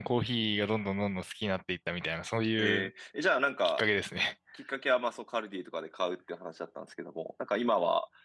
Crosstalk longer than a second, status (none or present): none